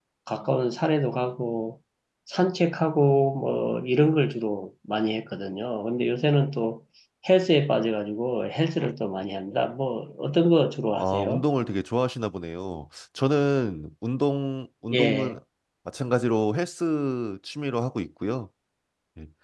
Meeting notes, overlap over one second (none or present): none